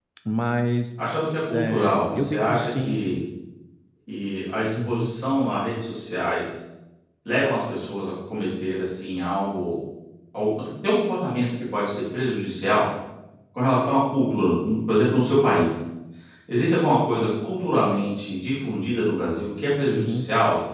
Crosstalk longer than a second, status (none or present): present